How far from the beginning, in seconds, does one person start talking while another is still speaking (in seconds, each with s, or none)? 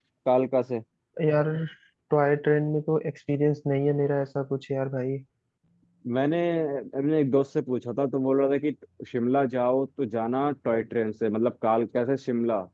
none